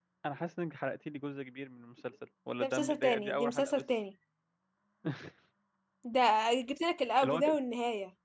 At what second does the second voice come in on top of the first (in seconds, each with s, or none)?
2.6 s